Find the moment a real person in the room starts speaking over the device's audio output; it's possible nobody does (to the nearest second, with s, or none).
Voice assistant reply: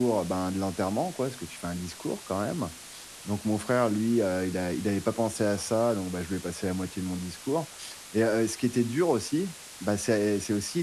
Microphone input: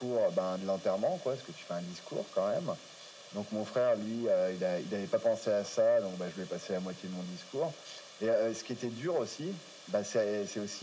none